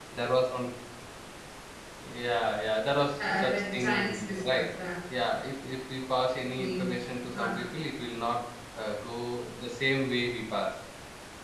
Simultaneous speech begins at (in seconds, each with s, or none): 3.2 s